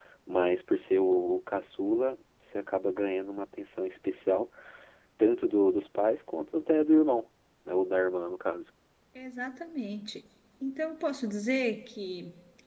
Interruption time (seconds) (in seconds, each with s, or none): none